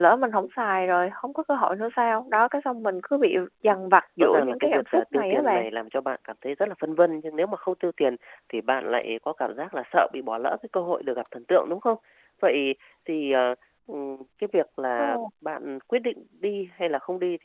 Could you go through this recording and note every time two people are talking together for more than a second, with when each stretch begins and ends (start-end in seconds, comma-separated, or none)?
4.2-5.7